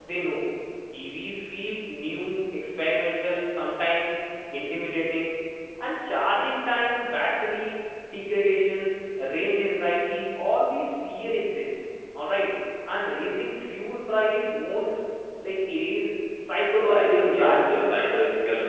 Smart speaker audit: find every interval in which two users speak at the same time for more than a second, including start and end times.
16.8-18.0

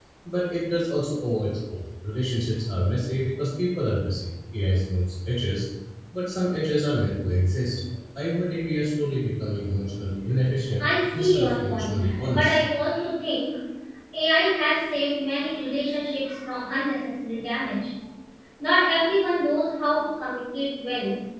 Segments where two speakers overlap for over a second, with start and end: 10.8-12.6

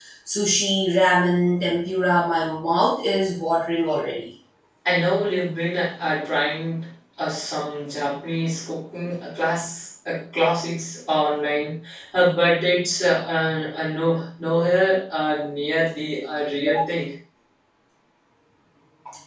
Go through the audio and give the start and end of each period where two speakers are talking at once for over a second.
none

